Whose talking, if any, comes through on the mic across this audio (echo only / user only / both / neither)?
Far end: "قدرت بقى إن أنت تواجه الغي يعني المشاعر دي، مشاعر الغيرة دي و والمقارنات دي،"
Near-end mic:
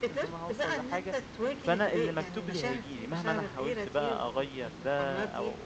both